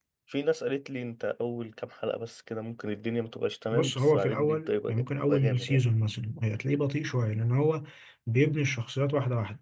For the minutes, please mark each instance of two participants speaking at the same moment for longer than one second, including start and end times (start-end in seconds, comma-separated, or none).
3.7-5.8